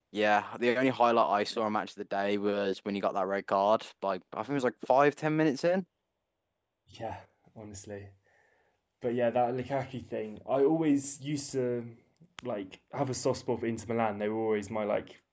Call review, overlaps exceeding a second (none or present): none